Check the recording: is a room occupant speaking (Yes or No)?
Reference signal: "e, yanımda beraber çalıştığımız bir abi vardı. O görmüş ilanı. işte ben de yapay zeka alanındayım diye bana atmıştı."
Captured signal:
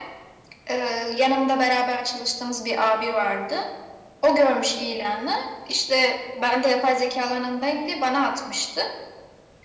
No